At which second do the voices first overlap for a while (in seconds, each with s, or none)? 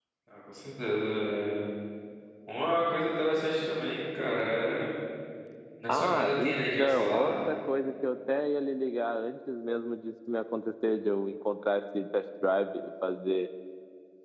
5.9 s